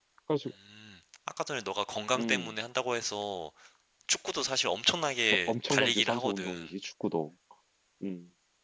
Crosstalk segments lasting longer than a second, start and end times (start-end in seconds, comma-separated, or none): 5.5-6.7